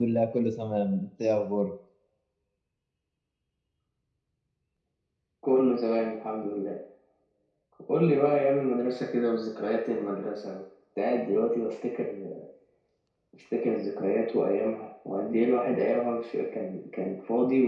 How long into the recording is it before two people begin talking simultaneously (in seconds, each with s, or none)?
none